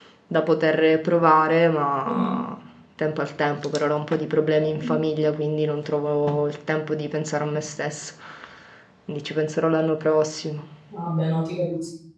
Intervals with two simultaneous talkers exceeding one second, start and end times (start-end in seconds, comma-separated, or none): none